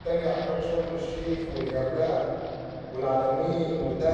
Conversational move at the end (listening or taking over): listening